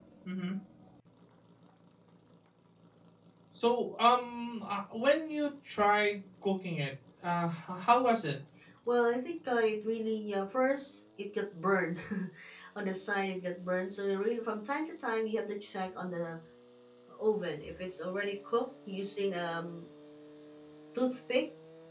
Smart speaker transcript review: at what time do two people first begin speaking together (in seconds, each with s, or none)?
none